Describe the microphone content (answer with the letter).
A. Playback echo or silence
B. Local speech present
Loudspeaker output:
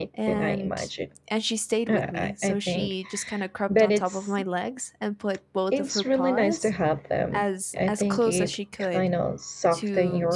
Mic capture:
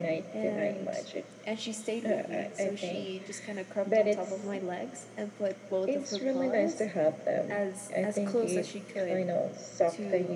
A